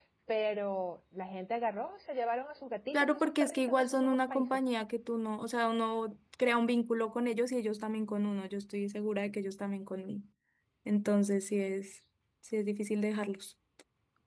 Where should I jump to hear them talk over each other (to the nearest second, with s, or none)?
3 s